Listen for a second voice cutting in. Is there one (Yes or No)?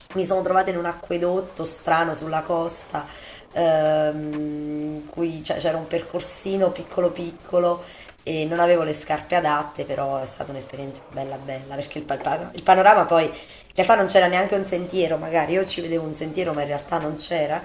No